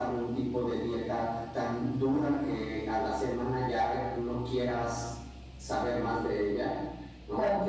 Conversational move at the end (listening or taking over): listening